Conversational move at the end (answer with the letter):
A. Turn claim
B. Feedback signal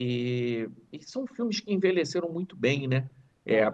B